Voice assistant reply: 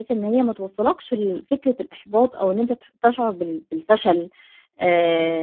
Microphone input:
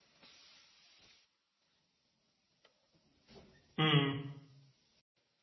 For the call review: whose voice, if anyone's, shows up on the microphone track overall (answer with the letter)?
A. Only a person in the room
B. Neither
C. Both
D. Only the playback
A